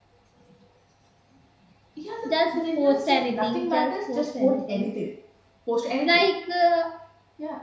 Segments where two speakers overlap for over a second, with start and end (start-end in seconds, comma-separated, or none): 2.2-4.9